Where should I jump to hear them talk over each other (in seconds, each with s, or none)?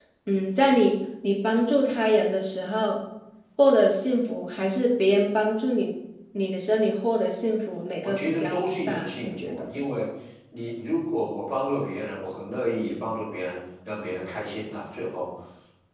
8.0 s